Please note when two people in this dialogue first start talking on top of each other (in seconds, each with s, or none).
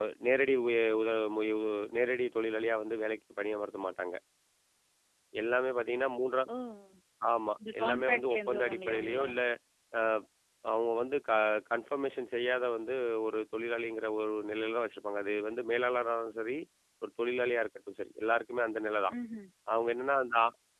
7.8 s